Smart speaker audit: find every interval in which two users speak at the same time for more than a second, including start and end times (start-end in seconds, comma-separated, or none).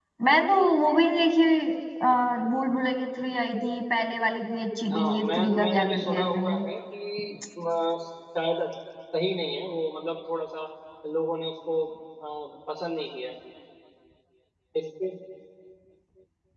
4.9-6.6